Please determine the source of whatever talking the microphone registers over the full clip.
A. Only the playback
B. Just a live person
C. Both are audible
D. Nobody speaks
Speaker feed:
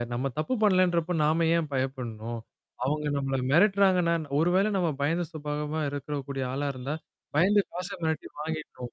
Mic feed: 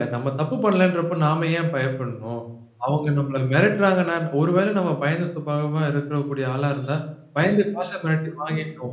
A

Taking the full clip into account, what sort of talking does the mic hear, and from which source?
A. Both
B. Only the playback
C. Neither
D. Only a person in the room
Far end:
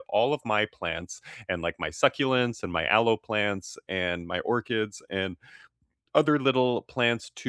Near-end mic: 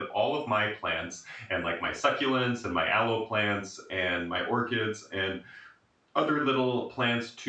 B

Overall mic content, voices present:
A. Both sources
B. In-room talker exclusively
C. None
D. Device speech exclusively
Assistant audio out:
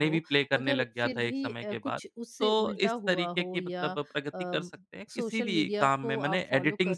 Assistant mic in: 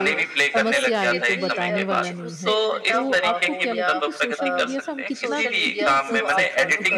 A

